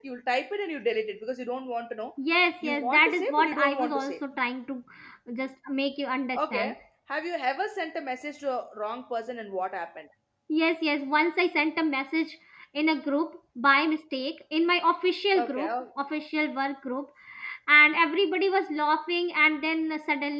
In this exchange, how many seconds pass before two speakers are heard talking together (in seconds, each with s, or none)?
2.6 s